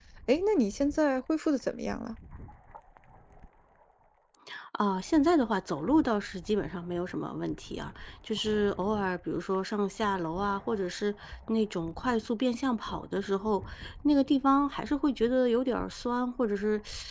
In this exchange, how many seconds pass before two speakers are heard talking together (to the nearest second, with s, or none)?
none